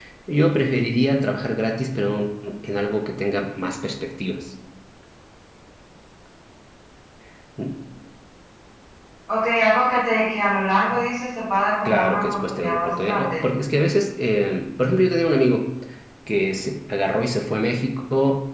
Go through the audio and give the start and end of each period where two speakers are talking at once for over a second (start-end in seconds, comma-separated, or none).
11.8-13.4